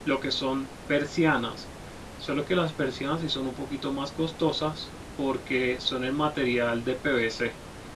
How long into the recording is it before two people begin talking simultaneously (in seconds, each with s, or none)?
none